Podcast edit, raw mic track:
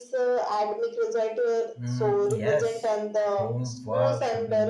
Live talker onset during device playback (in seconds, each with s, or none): 1.8 s